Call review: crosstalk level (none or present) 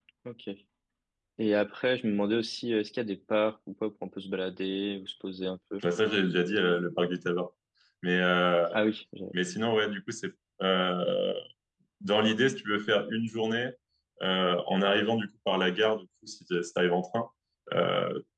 none